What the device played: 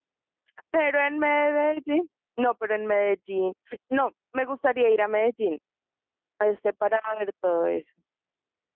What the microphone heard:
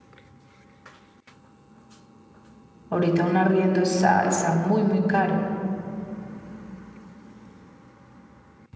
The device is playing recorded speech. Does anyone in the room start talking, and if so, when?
2.9 s

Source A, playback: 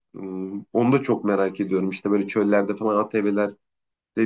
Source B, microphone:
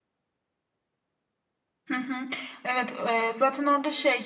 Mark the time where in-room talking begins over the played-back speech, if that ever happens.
1.9 s

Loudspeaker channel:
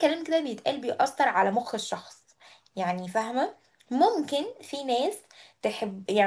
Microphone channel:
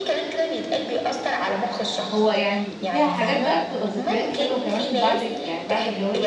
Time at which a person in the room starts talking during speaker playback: 2.1 s

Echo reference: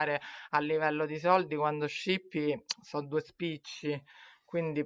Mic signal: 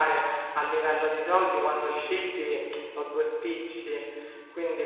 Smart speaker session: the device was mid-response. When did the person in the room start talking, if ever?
none

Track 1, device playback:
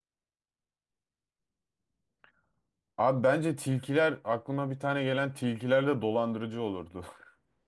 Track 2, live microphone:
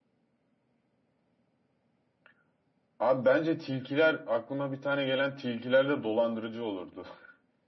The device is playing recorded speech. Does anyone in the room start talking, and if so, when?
none

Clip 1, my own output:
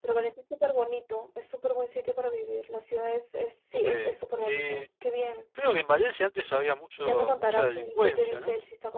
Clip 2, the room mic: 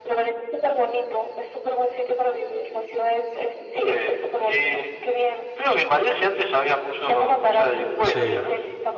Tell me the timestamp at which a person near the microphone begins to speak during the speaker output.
8.0 s

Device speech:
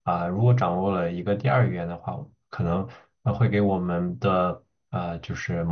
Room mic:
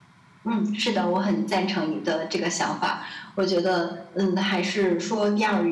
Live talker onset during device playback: 0.4 s

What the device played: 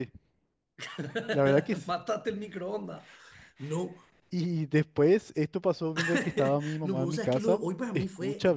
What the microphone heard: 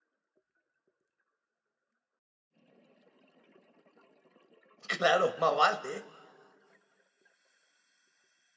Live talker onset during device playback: 4.9 s

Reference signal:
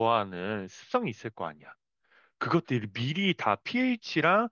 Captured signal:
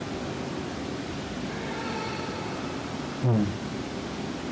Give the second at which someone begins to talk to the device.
3.2 s

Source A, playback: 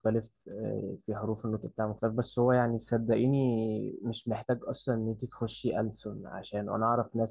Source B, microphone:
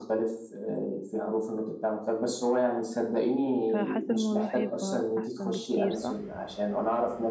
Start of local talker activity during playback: 3.7 s

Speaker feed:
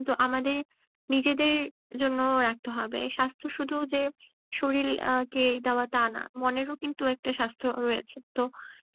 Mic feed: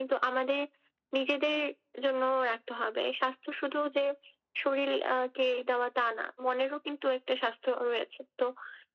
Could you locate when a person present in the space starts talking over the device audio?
none

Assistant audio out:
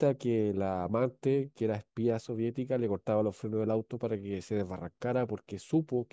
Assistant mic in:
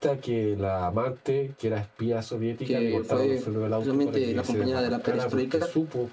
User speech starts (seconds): 2.6 s

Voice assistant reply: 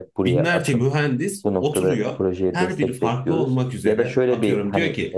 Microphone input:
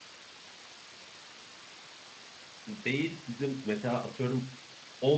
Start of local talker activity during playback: 2.7 s

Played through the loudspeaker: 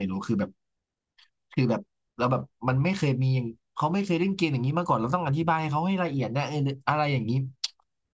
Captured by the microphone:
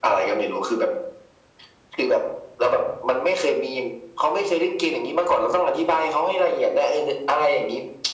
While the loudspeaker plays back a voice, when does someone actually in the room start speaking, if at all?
none

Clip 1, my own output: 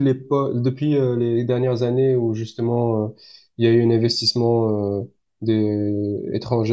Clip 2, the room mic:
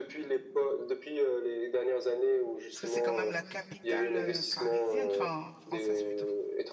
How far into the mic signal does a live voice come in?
2.7 s

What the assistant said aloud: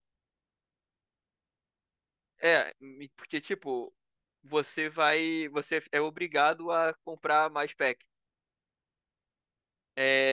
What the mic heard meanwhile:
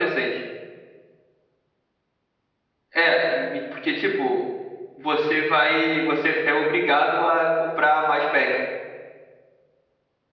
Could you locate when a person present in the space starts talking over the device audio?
none

